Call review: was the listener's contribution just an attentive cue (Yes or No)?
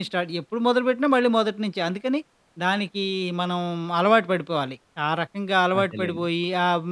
Yes